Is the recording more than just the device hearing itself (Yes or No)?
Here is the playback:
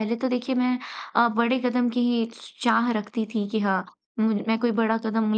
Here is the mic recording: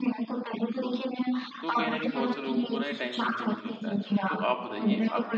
Yes